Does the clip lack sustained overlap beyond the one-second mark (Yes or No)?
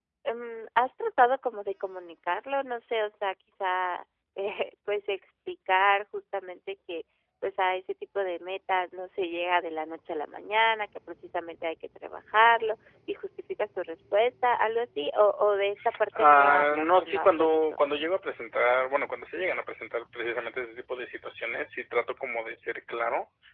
No